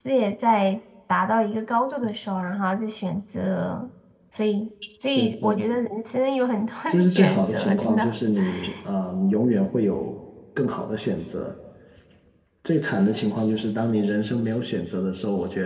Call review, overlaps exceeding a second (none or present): present